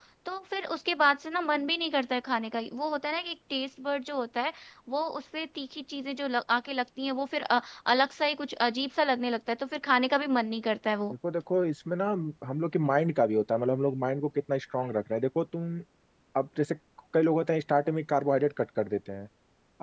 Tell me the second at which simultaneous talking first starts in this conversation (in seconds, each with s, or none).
none